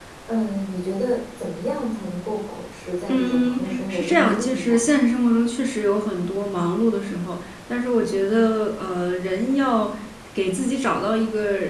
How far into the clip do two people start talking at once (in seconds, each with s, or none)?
3.1 s